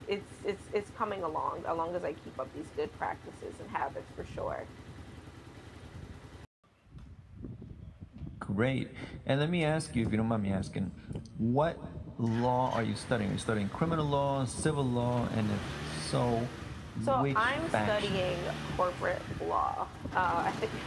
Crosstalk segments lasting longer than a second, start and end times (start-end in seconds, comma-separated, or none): 17.0-18.3